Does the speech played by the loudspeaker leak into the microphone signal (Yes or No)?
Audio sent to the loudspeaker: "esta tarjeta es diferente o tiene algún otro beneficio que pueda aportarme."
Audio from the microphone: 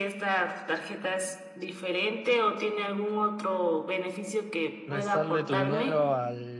Yes